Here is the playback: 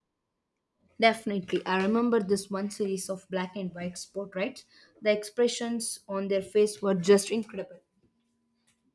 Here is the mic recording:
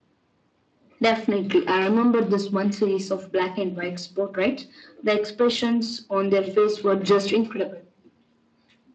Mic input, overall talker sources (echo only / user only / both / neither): echo only